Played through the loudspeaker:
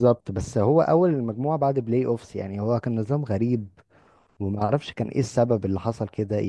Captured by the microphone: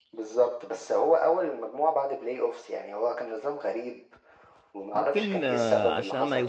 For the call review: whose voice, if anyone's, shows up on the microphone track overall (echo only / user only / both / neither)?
both